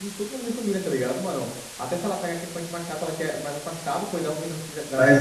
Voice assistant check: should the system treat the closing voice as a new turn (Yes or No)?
No